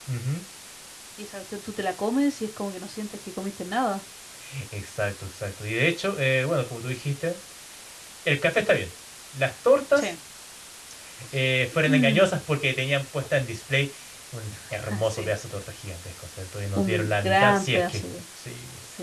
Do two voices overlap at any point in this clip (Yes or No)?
Yes